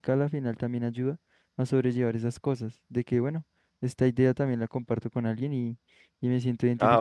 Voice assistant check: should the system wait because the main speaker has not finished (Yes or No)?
No